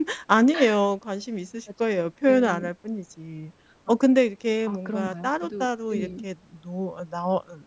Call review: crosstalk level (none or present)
present